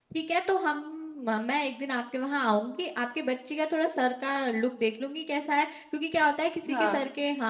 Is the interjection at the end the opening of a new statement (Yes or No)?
No